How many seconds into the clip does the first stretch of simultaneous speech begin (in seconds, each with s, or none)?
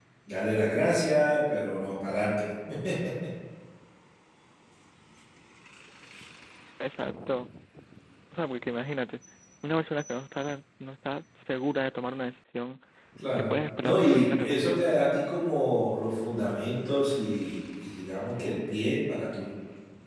13.5 s